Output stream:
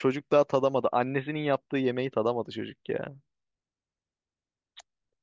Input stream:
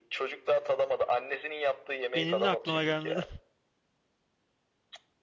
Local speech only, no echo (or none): Benim de aklıma gelmedi.